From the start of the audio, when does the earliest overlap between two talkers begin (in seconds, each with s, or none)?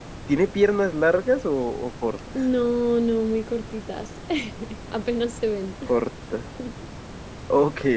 none